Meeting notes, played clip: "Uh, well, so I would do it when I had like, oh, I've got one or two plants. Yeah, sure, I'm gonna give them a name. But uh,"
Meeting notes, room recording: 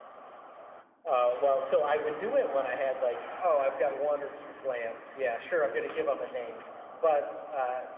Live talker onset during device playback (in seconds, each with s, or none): none